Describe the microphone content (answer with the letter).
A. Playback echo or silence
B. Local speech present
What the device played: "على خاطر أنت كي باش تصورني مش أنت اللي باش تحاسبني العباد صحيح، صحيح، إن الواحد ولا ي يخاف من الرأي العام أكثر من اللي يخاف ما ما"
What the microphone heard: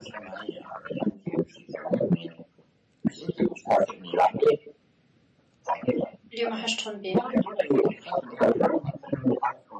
B